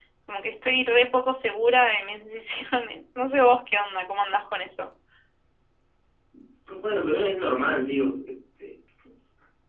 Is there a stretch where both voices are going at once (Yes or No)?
No